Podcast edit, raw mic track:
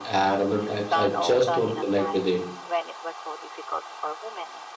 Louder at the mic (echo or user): user